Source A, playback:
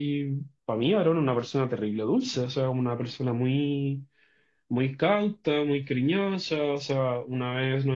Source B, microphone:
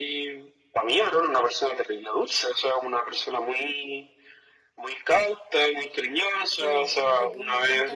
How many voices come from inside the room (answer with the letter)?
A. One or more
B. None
A